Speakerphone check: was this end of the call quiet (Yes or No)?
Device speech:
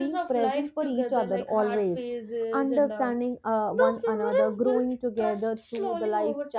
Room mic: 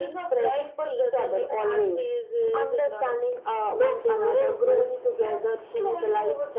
Yes